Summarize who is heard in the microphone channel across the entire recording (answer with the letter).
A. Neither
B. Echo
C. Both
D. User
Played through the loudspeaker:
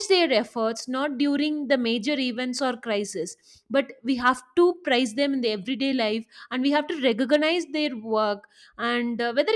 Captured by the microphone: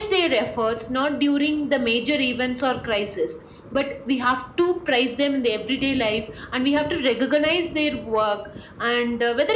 B